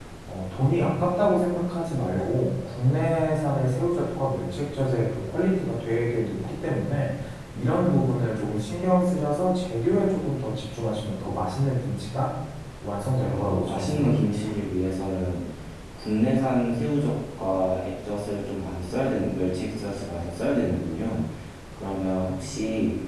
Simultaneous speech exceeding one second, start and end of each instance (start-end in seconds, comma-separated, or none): 13.3-14.5